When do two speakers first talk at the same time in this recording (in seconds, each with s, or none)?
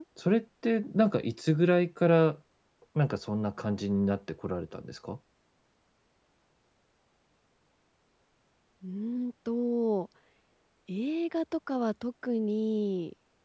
none